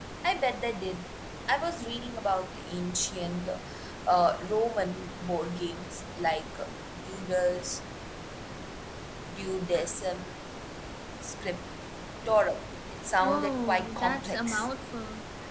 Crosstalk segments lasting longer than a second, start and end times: 13.2-14.7

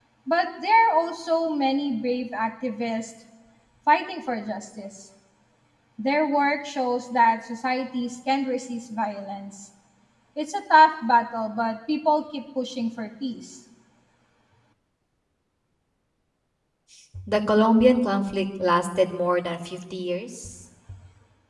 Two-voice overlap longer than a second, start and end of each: none

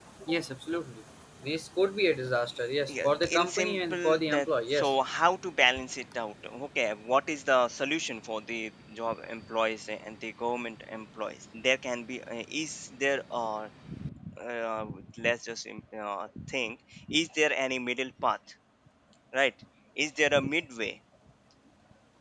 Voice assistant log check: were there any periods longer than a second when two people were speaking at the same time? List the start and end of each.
2.9-4.9

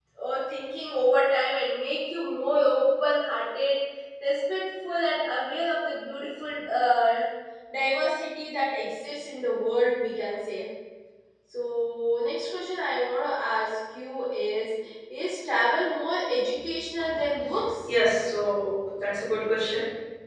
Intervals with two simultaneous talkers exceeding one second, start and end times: none

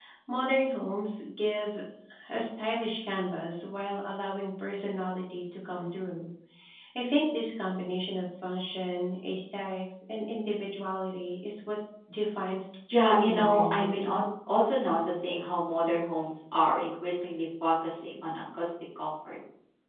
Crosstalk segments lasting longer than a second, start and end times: 12.9-14.2

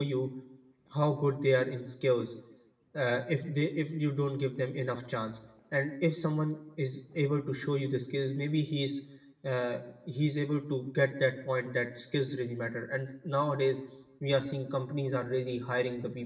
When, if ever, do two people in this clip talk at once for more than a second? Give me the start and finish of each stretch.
none

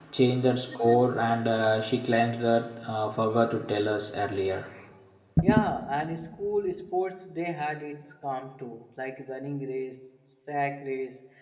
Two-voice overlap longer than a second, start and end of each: none

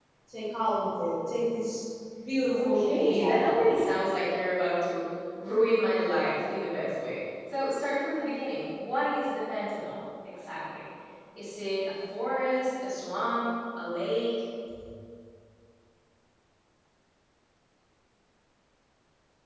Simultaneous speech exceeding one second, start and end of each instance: 2.6-3.9

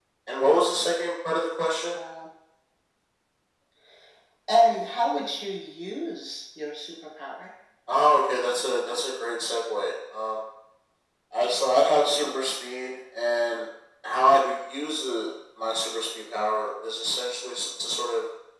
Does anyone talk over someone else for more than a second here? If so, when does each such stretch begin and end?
none

